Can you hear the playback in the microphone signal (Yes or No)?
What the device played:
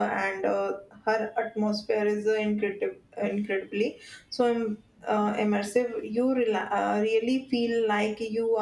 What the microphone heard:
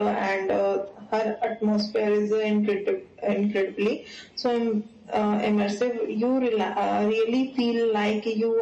Yes